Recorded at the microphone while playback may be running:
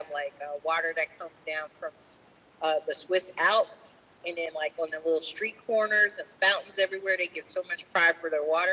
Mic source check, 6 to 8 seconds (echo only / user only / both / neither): echo only